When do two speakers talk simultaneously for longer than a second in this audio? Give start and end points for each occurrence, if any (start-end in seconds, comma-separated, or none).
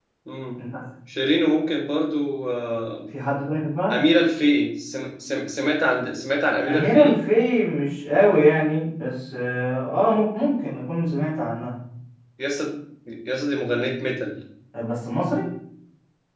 none